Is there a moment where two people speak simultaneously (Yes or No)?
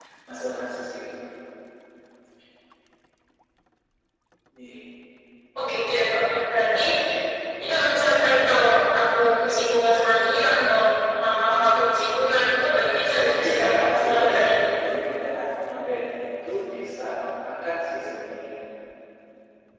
Yes